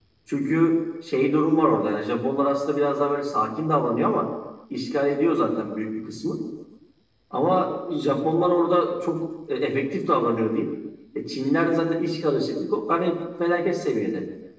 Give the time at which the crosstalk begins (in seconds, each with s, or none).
none